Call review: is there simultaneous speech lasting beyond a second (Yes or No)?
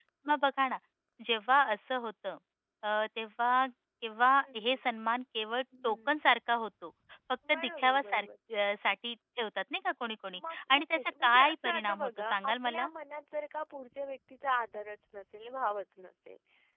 Yes